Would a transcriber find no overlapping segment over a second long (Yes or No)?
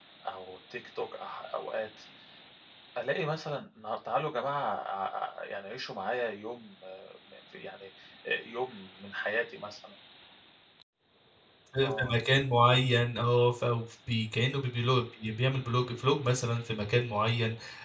Yes